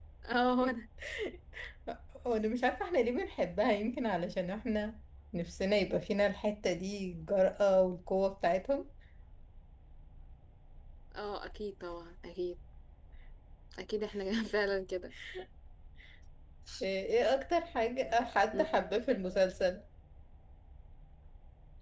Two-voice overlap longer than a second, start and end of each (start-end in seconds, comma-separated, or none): none